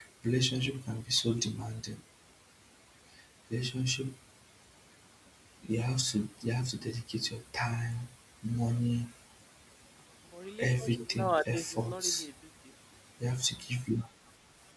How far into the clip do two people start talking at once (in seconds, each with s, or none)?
10.6 s